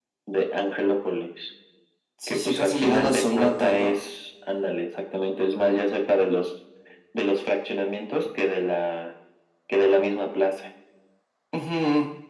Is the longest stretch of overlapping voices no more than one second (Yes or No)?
No